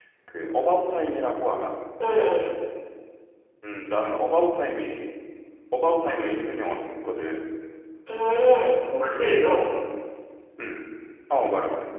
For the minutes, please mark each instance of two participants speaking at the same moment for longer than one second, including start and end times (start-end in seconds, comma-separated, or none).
none